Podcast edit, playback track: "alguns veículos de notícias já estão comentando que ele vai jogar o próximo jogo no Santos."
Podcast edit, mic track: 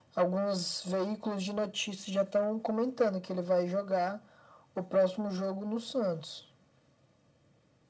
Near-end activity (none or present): none